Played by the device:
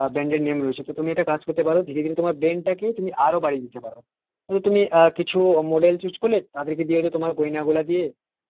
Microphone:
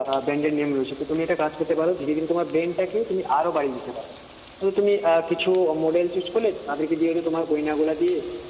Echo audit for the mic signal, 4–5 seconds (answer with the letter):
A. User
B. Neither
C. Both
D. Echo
D